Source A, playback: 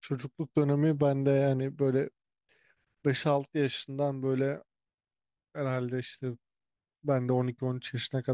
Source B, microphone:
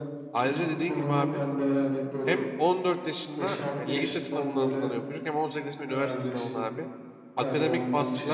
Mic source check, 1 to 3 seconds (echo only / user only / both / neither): both